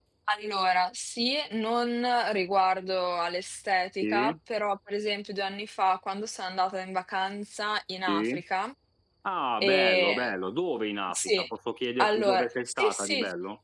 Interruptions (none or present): present